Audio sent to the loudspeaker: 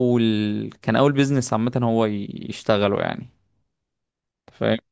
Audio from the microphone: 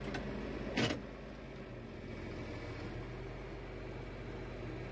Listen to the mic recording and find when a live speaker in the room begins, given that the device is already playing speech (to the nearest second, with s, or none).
none